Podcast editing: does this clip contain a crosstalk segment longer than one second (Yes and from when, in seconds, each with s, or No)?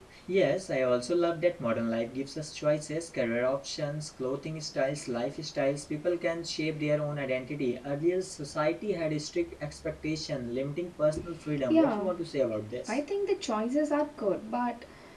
No